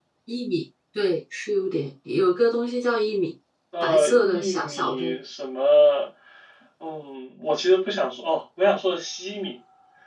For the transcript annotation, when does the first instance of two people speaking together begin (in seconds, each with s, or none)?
3.8 s